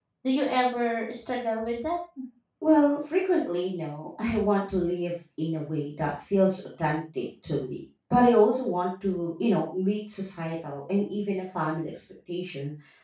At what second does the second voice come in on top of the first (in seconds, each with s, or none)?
none